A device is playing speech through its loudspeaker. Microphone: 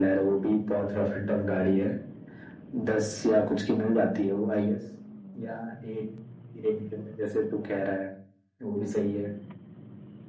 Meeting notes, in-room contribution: none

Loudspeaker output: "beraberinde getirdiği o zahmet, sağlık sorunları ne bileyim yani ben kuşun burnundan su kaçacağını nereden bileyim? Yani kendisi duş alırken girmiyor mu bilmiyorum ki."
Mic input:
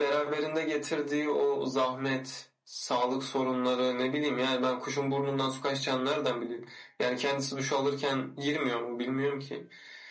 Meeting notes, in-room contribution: none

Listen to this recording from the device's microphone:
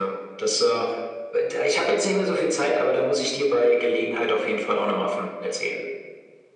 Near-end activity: none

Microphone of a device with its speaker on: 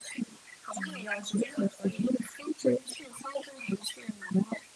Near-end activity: present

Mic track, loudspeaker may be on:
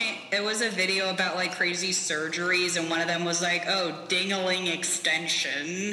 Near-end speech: none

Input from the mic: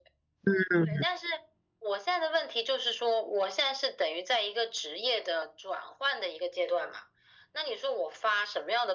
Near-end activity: present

